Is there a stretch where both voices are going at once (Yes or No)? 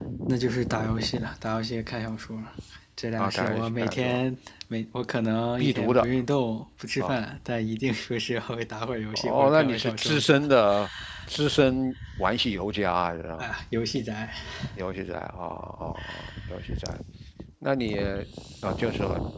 Yes